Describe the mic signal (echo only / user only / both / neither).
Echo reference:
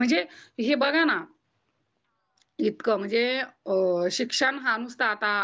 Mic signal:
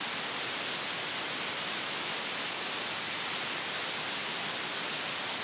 neither